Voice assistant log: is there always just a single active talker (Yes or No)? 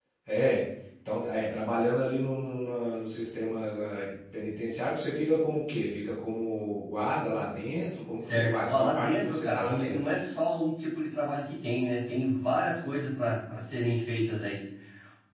No